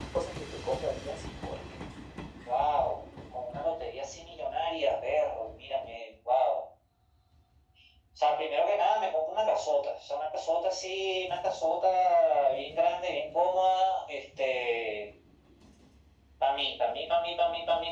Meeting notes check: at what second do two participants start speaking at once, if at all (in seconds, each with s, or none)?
none